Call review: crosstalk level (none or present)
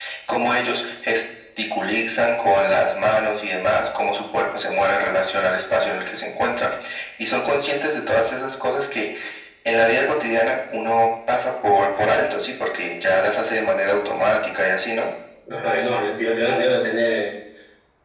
none